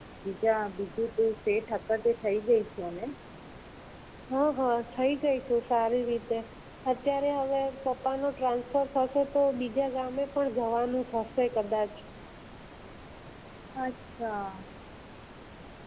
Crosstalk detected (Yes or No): No